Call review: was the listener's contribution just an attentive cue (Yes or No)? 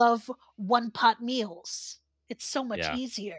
Yes